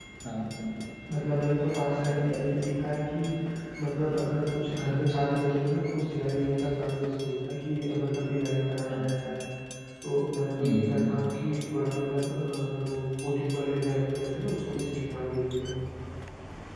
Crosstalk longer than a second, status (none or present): none